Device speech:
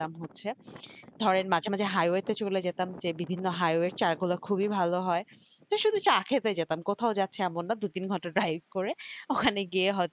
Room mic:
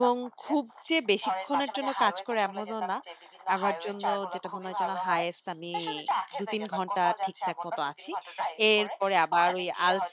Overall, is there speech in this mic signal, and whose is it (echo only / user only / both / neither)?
both